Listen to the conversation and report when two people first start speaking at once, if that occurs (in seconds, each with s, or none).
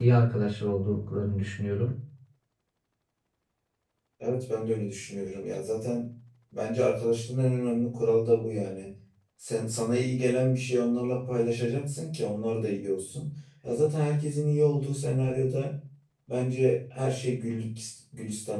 none